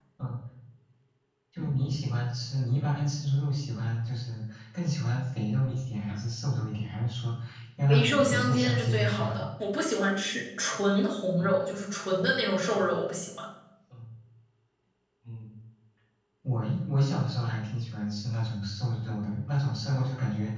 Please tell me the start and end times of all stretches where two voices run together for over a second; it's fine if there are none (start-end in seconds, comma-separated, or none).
7.9-9.5